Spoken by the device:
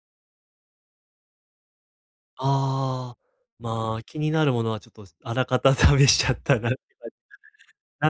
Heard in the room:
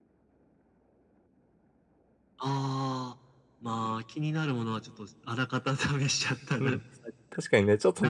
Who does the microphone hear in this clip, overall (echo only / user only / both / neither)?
both